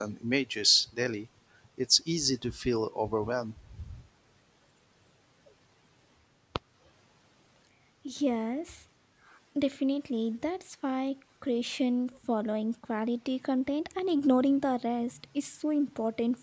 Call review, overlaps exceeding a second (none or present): none